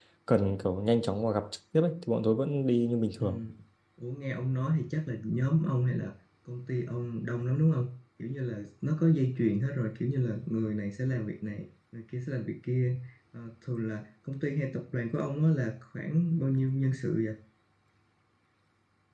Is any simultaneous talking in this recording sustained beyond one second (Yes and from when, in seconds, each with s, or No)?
No